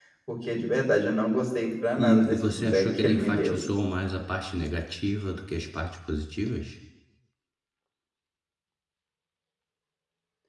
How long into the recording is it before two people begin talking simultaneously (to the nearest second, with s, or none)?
2 s